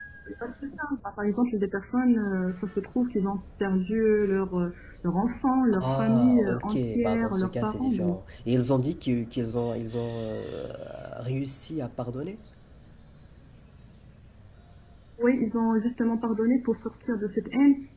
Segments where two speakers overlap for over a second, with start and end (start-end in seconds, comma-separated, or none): 5.8-8.2